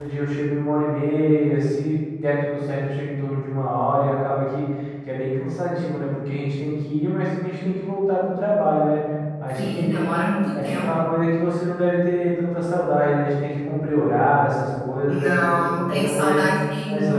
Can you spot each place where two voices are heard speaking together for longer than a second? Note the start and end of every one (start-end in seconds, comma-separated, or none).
15.1-16.4